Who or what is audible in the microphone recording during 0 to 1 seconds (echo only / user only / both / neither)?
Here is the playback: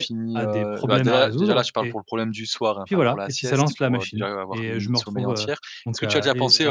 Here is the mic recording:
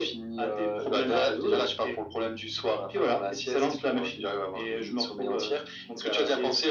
echo only